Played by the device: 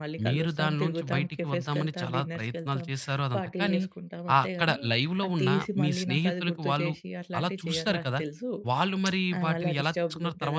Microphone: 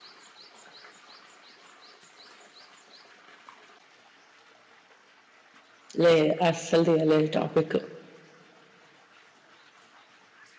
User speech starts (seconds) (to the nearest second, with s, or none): 6 s